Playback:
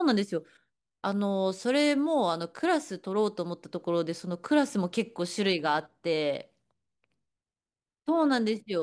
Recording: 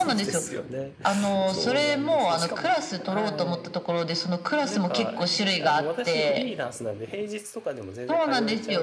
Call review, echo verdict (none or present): present